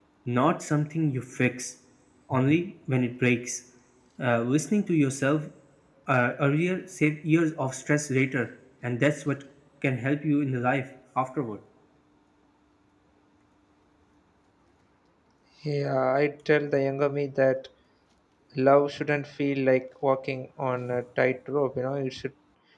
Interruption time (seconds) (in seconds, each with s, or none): none